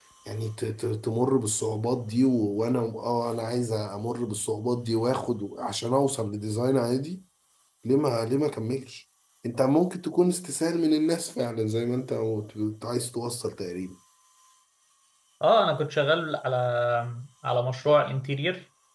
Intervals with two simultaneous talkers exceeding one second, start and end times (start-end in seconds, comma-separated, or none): none